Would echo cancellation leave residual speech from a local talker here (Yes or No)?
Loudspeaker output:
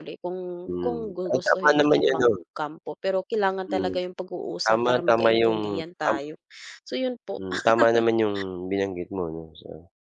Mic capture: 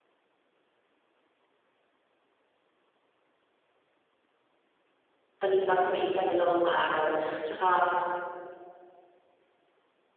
Yes